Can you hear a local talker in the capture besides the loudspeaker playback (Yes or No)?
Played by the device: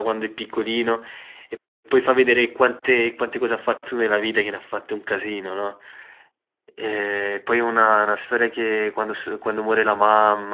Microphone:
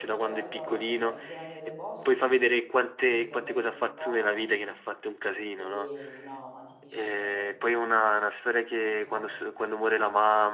Yes